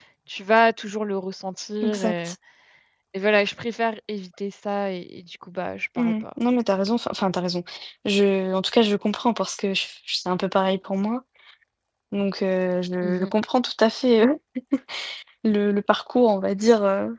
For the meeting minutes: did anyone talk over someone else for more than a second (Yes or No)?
No